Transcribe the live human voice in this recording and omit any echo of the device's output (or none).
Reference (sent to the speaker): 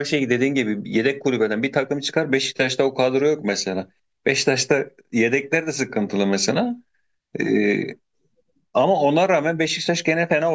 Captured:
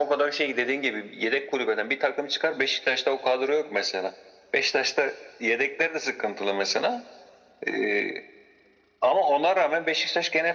none